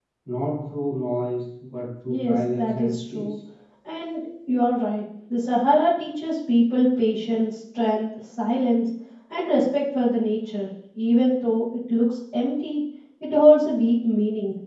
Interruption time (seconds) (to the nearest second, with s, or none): 2 s